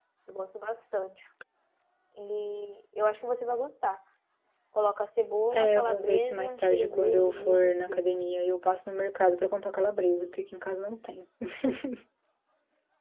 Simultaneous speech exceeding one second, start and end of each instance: 5.5-8.3

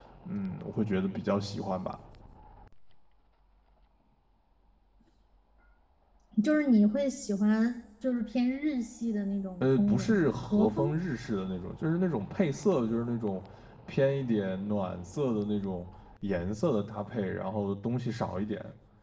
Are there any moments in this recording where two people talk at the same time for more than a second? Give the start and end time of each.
9.6-10.9

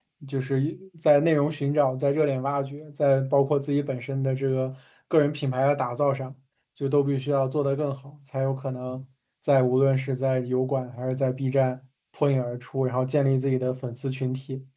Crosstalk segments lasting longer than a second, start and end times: none

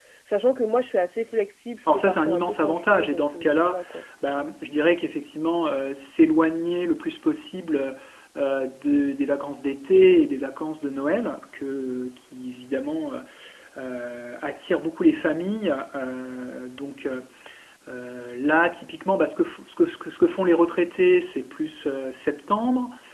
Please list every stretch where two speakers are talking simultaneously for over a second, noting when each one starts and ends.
1.8-3.8

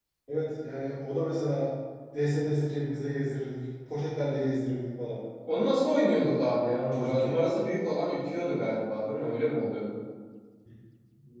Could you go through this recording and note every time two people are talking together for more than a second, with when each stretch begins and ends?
none

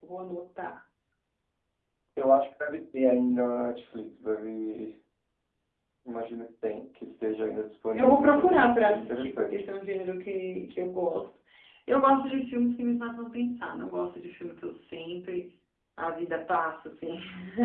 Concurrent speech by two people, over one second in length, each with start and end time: 8.0-9.6

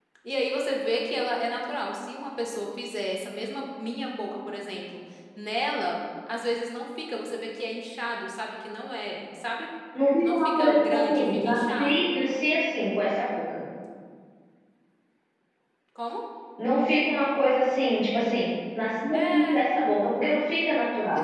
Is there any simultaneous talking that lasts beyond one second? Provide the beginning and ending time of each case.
10.2-12.1

